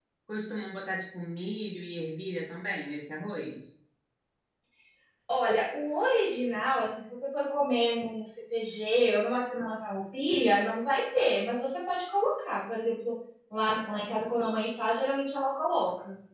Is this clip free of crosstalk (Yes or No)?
Yes